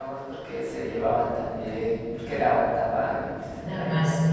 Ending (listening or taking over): taking over